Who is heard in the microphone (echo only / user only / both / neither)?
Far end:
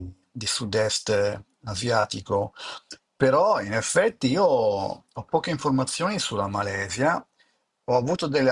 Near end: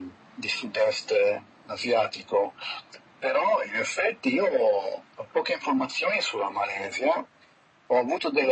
echo only